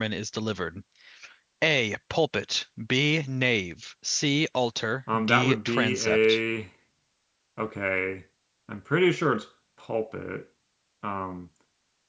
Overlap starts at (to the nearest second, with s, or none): 5 s